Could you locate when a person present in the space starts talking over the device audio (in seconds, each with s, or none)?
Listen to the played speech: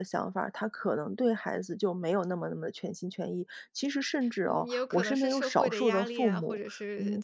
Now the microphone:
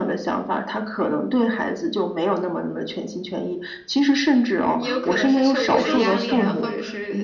4.8 s